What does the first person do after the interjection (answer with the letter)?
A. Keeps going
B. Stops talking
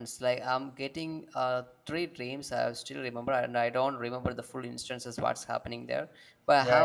A